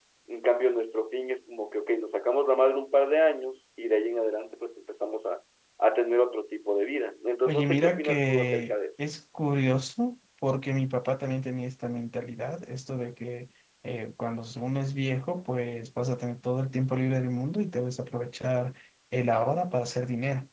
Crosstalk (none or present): present